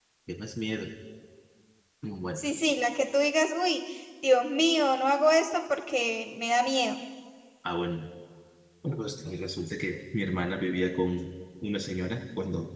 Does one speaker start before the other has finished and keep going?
No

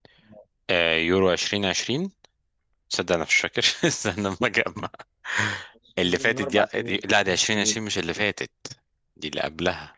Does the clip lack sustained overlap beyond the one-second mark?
No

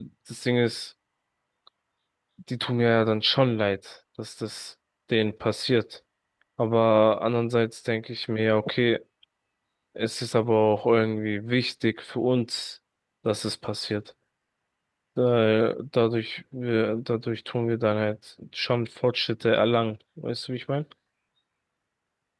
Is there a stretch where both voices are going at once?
No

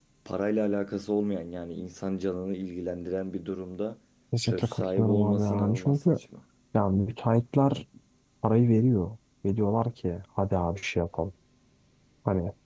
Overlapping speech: Yes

